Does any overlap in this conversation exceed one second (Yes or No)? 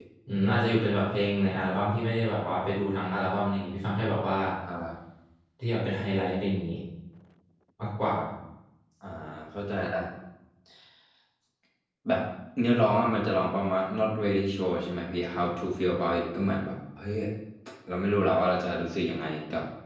No